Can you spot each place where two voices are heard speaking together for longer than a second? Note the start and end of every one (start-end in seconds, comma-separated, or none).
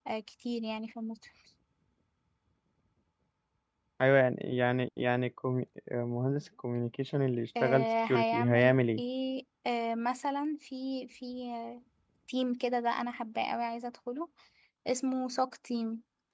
7.6-9.0